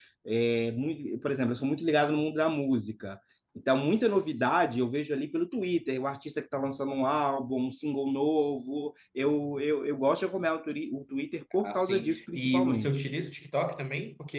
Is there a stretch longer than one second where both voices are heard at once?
Yes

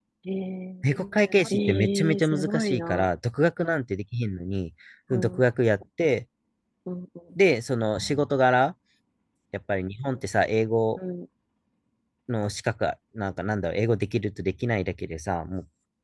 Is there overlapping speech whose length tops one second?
Yes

